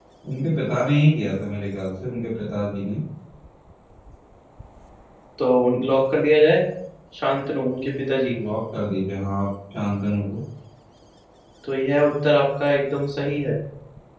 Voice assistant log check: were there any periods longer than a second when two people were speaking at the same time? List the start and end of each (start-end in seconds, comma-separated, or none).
none